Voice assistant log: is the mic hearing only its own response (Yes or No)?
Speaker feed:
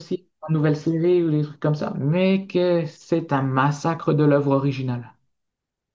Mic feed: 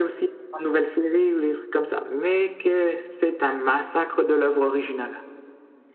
Yes